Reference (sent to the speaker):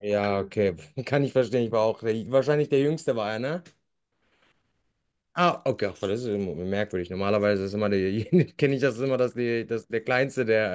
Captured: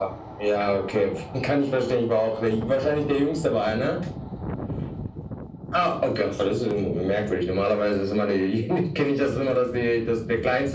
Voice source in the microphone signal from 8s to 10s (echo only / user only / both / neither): echo only